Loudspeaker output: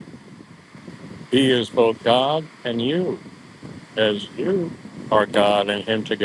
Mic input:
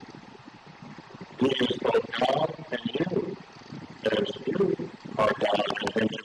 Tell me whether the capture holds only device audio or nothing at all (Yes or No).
Yes